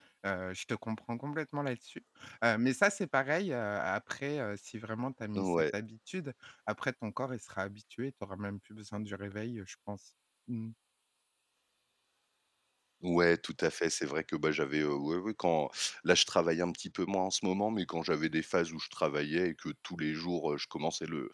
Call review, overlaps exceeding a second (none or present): none